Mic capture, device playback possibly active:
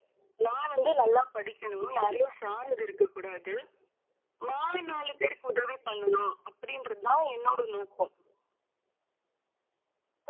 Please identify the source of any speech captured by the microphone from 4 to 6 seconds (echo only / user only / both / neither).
echo only